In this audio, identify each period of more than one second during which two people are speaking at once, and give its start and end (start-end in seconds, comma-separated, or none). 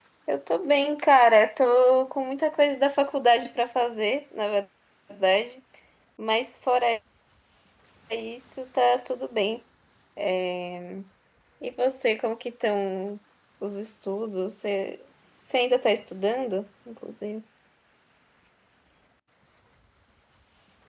none